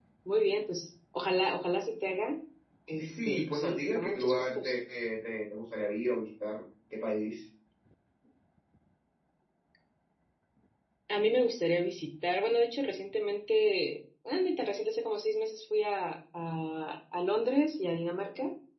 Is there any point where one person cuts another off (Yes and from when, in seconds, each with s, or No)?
Yes, from 3.0 s